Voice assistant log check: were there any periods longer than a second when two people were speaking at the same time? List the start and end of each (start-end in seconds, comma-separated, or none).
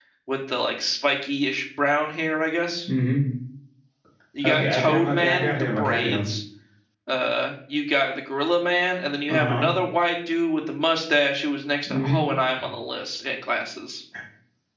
4.5-6.2